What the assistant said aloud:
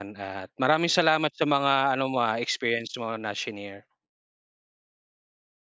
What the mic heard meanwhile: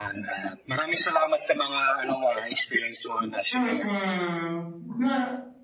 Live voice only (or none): Mm. Ma